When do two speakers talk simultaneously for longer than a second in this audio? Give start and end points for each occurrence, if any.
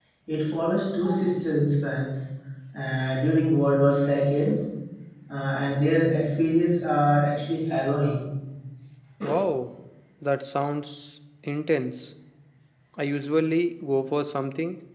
none

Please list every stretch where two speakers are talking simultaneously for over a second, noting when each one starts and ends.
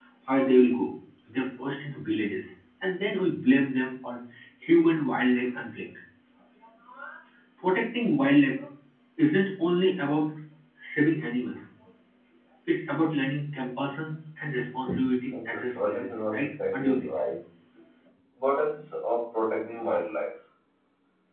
15.3-17.2

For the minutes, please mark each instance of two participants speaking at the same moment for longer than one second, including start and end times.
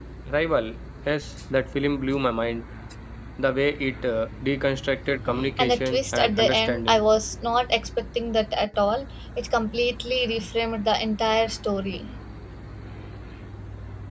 5.6-7.0

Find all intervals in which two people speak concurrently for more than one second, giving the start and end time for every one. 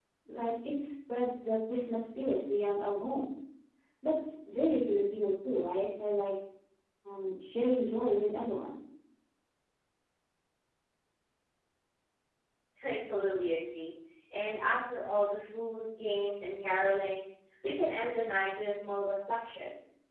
none

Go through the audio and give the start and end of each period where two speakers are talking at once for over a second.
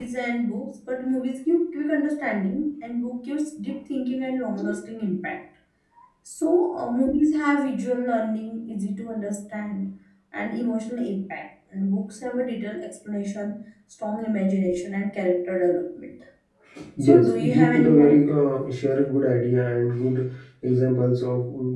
17.0-18.3

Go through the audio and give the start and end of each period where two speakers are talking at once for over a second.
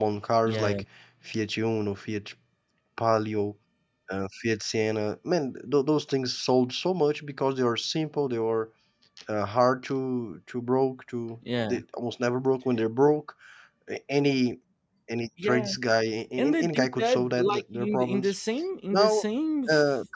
16.6-18.3

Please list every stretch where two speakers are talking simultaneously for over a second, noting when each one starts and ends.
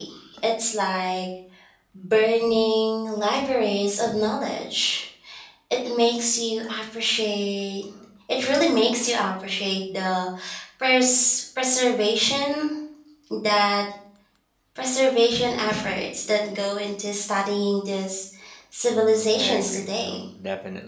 18.9-20.2

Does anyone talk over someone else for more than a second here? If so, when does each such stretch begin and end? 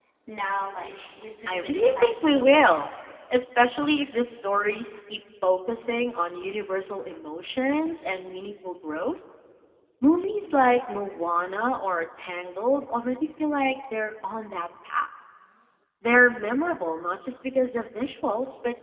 1.5-2.7

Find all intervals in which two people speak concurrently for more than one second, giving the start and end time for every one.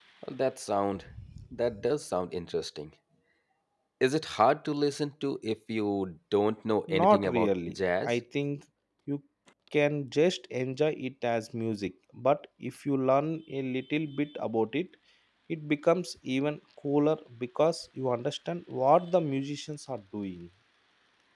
6.9-8.1

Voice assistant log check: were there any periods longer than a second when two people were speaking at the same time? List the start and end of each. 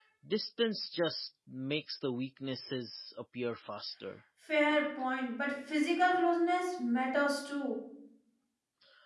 none

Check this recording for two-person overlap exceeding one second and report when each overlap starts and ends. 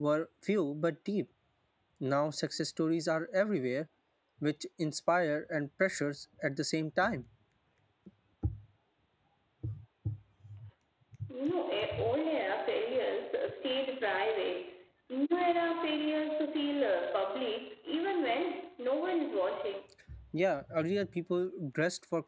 none

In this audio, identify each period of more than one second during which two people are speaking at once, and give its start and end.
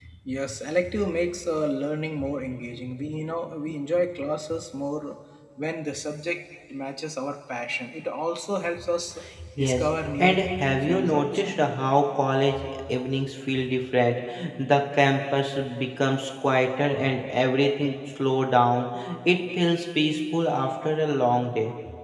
9.6-11.5

